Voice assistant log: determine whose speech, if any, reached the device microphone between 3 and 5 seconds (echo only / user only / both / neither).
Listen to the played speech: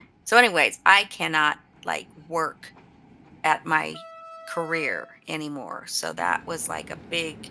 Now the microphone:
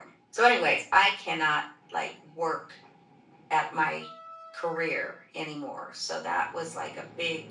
echo only